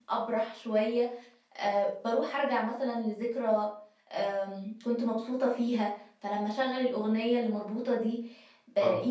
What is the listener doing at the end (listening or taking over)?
listening